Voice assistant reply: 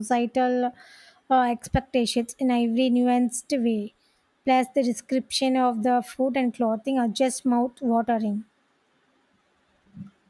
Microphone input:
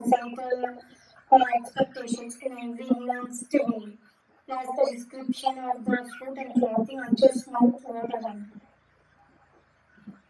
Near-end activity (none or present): none